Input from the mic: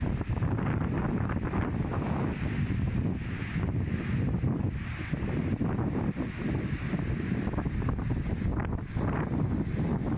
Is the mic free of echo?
Yes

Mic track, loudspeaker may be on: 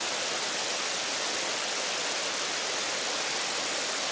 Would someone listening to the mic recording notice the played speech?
No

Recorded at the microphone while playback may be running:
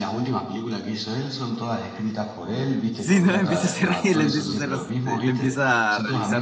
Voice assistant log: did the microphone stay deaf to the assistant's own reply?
No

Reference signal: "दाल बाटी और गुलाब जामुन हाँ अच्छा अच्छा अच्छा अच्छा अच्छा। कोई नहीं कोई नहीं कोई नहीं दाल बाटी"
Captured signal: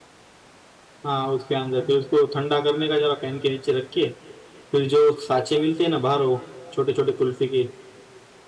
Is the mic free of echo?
Yes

